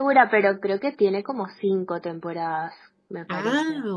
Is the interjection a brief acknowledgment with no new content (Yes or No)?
No